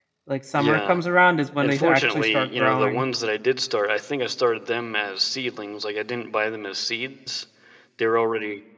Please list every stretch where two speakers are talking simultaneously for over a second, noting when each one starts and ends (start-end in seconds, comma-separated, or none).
1.6-3.0